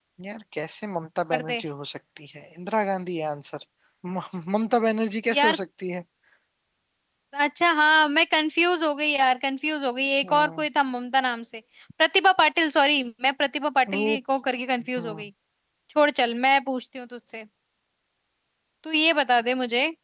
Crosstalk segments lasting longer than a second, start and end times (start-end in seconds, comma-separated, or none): none